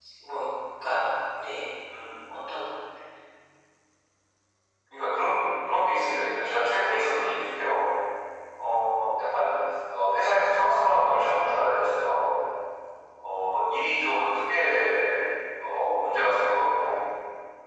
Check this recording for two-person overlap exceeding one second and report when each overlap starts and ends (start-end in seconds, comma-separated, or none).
none